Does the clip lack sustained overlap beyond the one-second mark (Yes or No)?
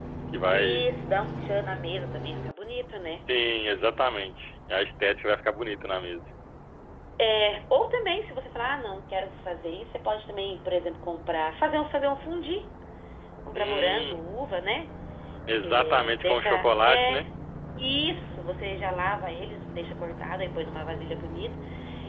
No